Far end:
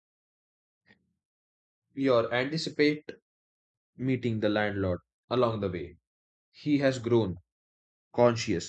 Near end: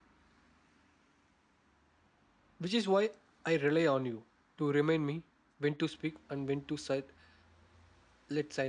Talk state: user only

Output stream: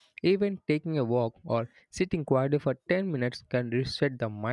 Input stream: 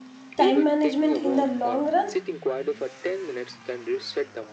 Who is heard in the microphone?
both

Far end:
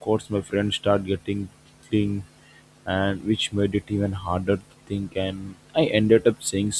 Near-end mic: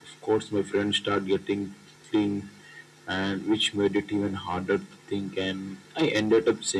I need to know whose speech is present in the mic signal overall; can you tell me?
echo only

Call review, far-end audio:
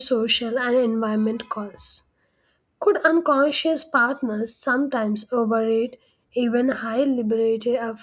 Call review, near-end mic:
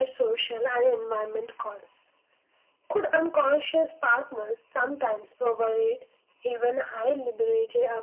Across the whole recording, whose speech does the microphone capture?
echo only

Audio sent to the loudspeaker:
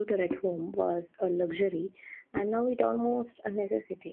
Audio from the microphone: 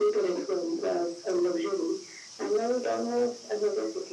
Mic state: echo only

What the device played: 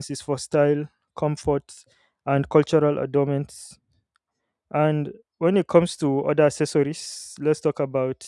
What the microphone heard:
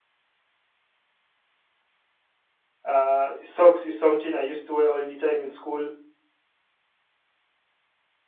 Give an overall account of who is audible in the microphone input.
user only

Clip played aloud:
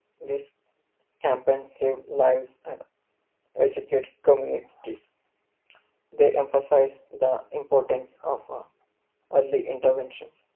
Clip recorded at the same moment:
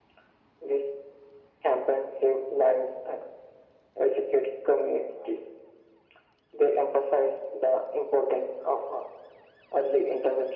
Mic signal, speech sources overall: echo only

